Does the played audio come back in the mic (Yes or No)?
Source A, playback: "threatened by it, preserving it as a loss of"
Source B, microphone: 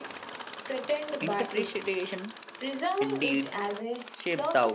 Yes